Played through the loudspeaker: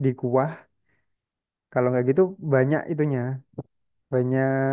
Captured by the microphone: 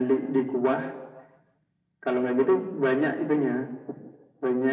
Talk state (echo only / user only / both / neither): echo only